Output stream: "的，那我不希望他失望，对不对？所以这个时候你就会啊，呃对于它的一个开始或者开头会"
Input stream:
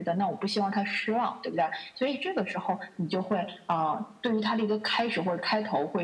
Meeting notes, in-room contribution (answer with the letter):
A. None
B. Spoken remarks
A